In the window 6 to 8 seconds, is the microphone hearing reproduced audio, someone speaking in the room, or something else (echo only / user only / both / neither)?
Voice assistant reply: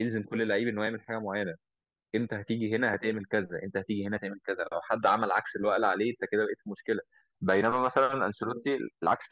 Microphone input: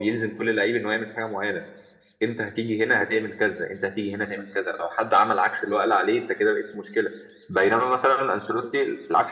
echo only